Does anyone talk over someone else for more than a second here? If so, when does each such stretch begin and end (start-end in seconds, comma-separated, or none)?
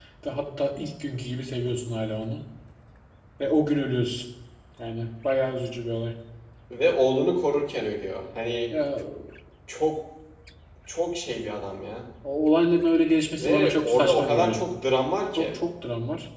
13.4-14.6